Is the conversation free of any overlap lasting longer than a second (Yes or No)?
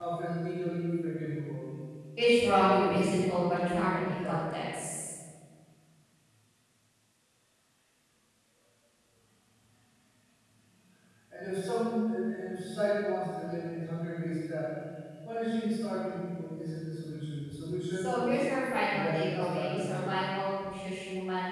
No